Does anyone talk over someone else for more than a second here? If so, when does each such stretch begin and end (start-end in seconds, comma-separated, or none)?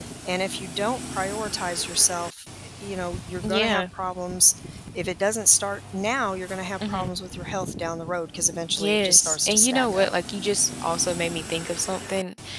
8.8-10.1